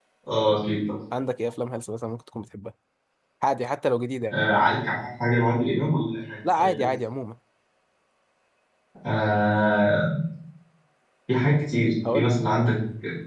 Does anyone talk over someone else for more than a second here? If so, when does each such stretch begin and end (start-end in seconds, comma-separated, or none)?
none